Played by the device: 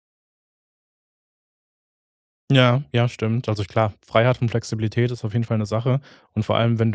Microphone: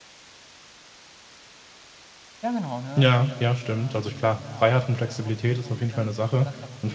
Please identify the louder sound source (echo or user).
echo